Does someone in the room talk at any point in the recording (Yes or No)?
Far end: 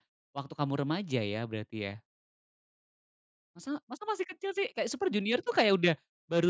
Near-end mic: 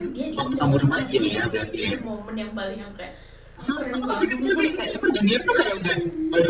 Yes